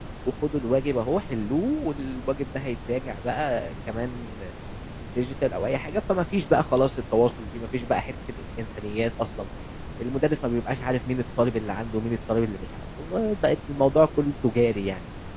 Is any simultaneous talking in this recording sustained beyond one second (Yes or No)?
No